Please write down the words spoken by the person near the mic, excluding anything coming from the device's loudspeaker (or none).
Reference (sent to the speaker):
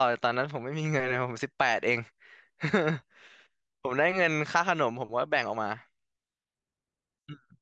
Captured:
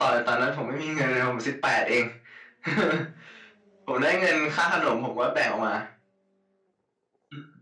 none